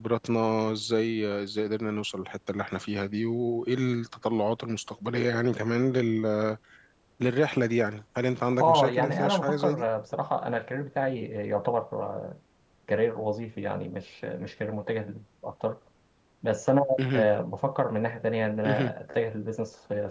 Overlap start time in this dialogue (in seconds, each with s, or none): 8.6 s